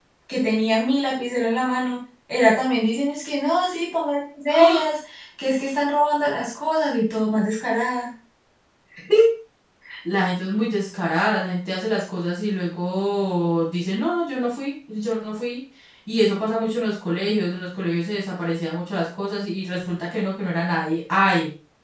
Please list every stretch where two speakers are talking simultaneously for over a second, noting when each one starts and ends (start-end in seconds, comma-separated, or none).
none